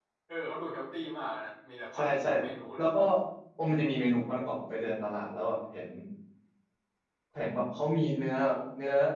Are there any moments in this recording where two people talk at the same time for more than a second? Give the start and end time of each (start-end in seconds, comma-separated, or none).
none